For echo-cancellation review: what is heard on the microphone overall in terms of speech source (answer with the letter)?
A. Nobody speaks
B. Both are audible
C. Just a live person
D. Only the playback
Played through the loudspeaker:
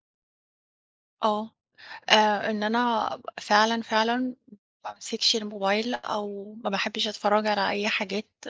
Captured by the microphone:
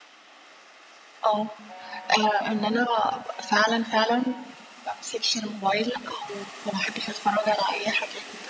D